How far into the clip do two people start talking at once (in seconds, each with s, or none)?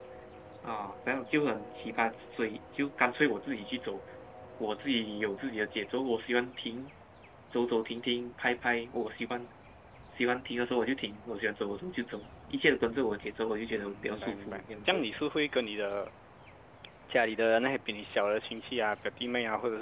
13.7 s